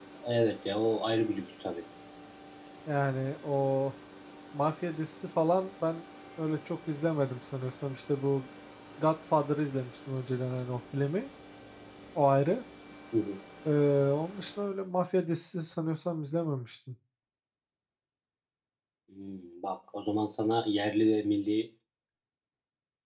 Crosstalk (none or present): none